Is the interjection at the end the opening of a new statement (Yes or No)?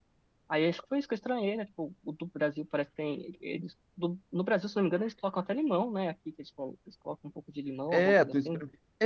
Yes